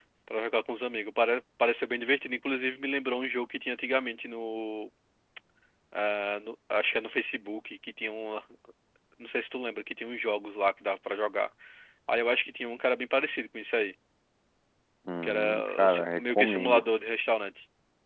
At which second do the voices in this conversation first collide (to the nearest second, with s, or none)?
15 s